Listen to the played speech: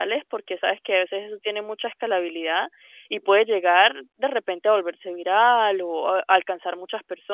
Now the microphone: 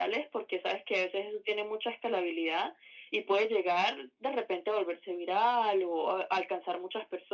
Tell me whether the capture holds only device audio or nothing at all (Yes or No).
Yes